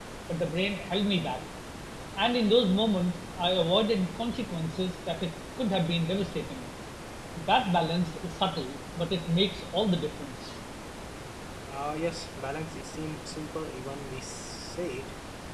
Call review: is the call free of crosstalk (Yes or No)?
Yes